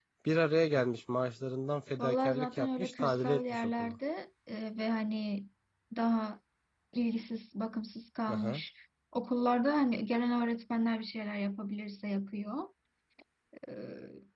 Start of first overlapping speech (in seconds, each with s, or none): 2.0 s